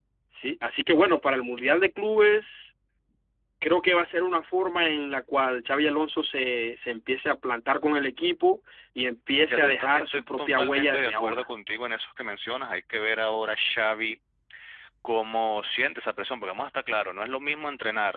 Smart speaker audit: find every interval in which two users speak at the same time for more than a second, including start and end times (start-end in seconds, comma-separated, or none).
9.5-11.5